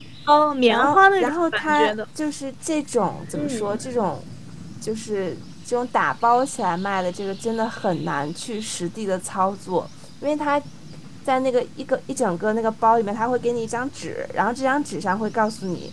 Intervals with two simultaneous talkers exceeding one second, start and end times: 0.7-1.9

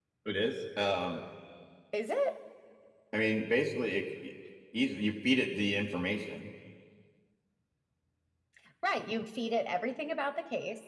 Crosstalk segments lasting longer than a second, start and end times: none

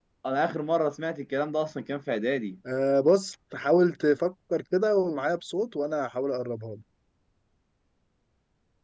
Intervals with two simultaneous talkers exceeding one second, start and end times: none

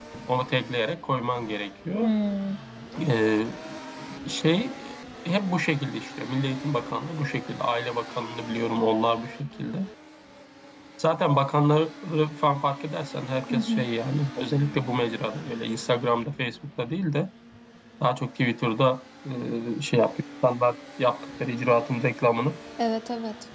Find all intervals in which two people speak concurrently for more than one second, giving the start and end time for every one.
none

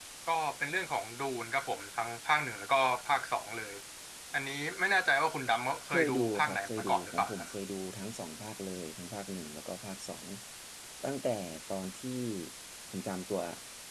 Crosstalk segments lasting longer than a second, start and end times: 5.9-7.5

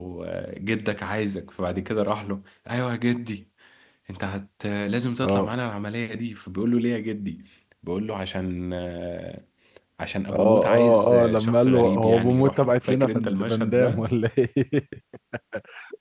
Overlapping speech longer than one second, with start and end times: 10.3-14.1

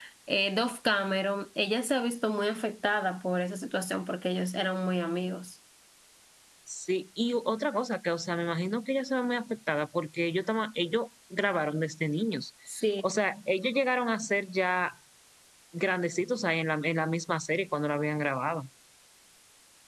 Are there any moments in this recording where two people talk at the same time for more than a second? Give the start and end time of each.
none

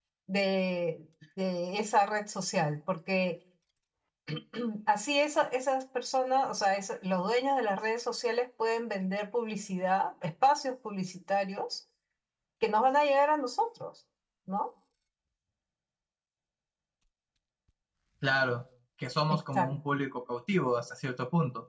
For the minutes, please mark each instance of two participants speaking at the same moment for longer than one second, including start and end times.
none

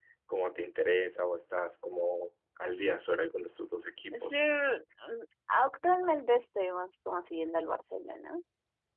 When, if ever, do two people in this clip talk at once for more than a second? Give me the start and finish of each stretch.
none

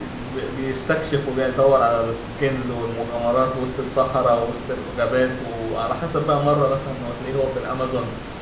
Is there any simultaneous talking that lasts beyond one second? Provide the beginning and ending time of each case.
none

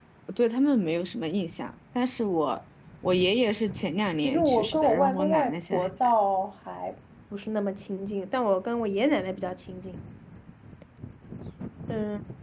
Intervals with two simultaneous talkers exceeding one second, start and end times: 4.2-6.1

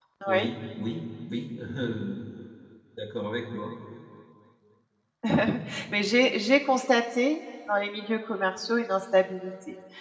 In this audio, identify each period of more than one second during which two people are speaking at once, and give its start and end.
none

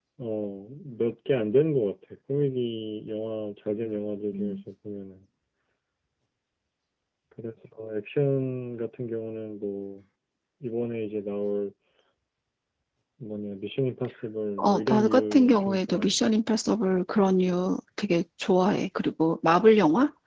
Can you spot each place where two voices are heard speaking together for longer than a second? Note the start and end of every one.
14.6-16.2

